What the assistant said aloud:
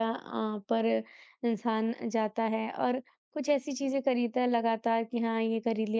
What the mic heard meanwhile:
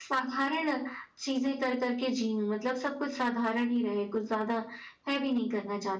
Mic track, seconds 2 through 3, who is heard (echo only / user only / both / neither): user only